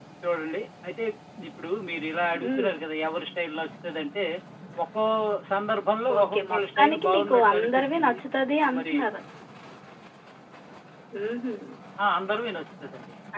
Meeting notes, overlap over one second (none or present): present